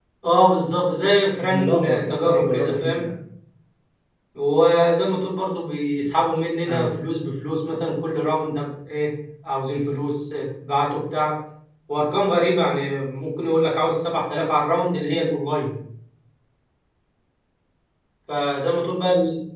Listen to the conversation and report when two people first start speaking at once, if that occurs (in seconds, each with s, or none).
1.6 s